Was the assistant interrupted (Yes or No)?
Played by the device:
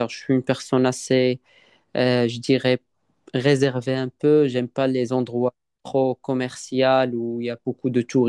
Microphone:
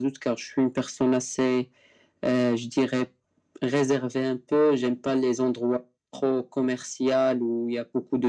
No